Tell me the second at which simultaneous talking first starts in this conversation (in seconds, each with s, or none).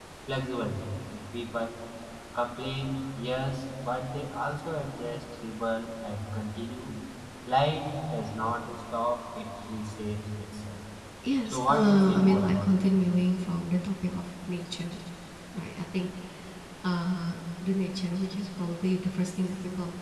11.4 s